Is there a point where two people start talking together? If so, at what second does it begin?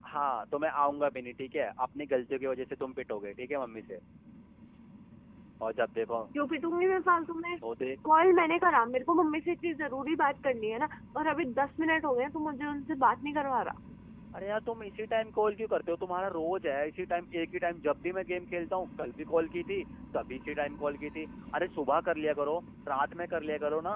none

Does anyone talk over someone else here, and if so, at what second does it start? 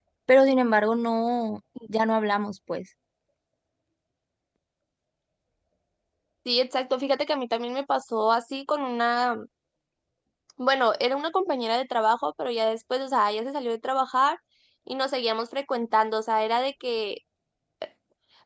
none

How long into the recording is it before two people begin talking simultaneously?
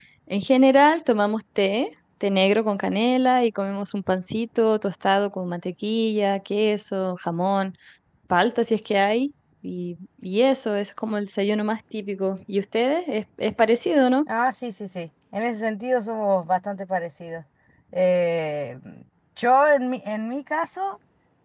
none

